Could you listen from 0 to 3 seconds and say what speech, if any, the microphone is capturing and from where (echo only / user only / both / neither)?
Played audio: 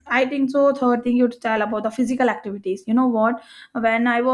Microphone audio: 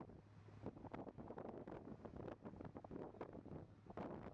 neither